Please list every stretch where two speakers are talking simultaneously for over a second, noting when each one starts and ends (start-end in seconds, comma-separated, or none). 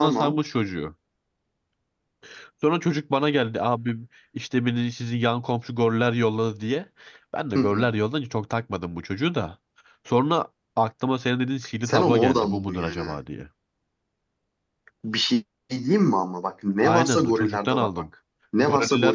11.8-13.2, 16.8-18.0